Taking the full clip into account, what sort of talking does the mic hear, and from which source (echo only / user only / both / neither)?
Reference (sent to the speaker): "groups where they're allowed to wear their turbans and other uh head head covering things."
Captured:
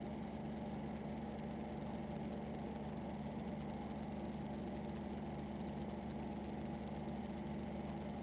neither